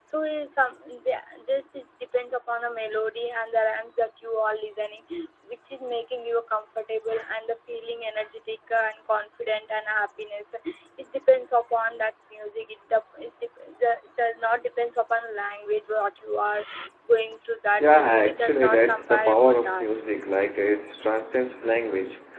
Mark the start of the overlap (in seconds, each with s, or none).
17.8 s